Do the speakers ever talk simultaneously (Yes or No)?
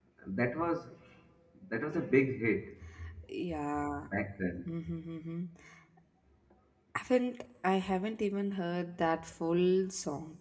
No